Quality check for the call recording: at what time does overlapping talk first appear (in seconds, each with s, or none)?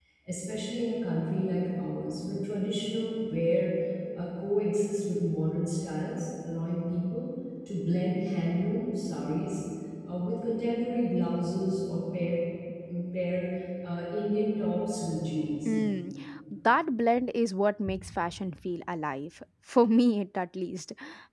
none